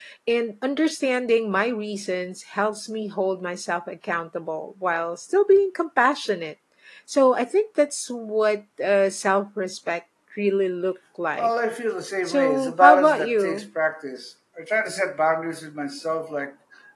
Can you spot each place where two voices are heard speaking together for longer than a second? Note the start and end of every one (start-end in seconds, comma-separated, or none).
12.3-13.6